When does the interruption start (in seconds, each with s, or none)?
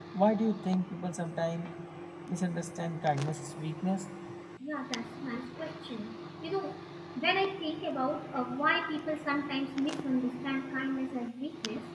none